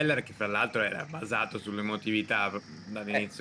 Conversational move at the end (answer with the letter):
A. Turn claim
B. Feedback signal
A